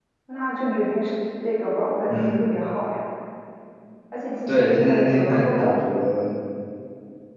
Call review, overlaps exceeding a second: present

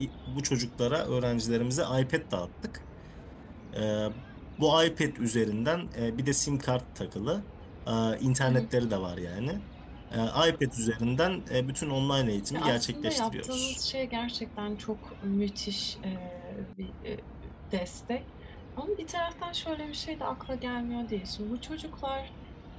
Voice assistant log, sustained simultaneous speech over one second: present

